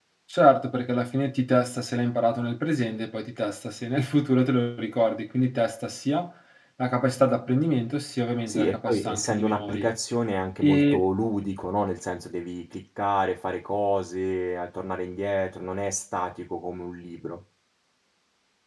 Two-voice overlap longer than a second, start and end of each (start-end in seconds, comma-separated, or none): 8.5-9.9